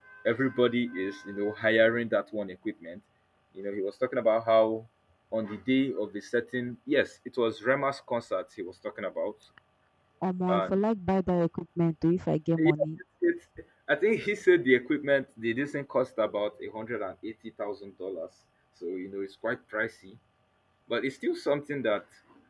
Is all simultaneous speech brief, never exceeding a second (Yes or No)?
Yes